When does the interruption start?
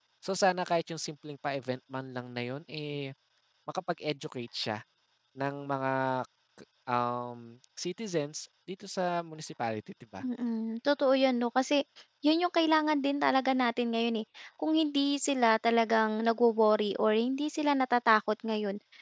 none

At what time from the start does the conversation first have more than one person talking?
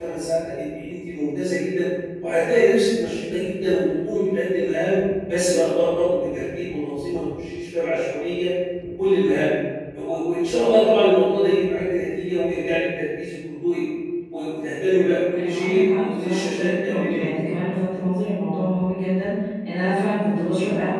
15.3 s

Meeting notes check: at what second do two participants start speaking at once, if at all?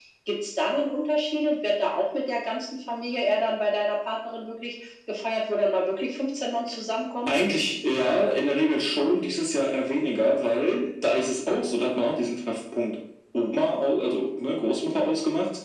none

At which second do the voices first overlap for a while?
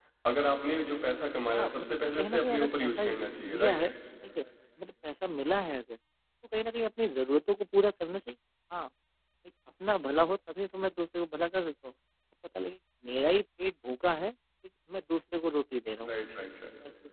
1.5 s

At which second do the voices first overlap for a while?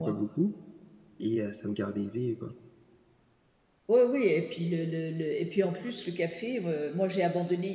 none

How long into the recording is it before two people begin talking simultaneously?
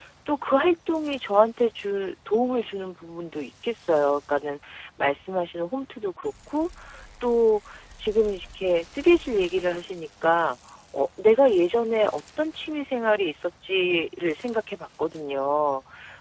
none

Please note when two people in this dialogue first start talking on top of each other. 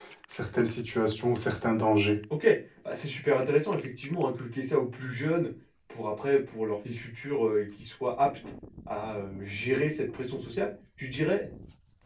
none

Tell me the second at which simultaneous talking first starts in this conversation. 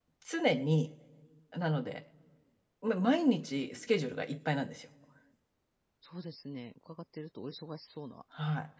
none

